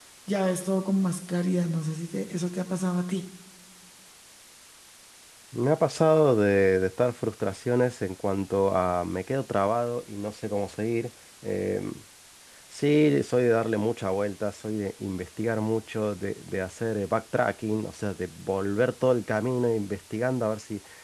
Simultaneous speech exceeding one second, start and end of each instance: none

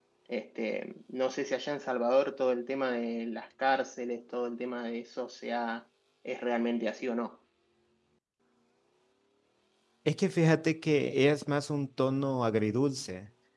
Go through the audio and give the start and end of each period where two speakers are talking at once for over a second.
none

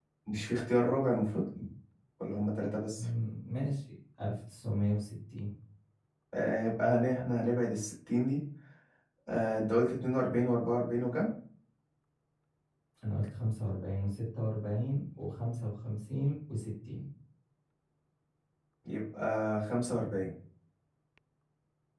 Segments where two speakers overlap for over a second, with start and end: none

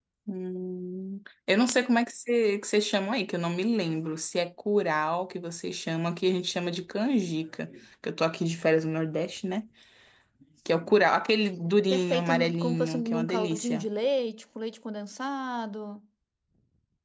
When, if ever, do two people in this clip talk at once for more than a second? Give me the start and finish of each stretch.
11.9-13.9

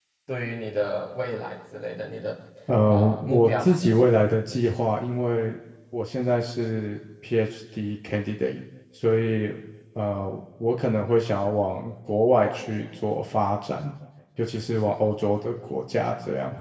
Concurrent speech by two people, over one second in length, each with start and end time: 2.9-4.1

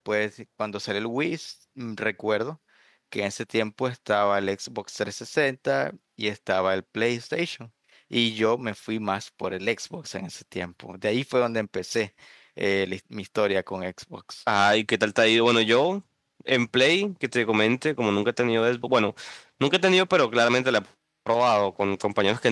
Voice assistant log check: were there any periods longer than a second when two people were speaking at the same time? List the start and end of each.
none

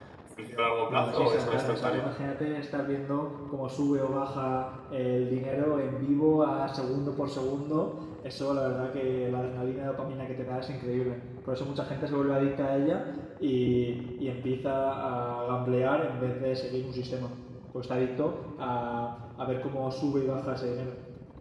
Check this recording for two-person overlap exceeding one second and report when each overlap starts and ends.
0.9-2.1

